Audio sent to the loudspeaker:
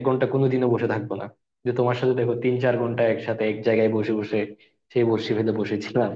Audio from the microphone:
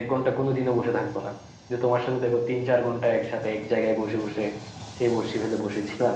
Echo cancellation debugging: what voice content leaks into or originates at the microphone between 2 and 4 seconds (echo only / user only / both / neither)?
echo only